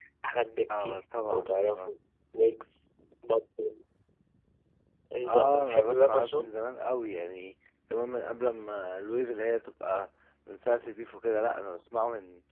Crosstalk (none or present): present